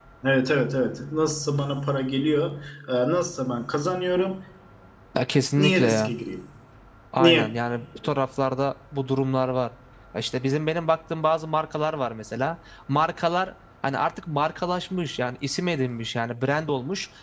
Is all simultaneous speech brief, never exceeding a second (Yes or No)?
Yes